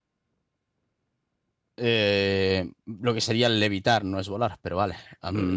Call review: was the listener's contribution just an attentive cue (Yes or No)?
No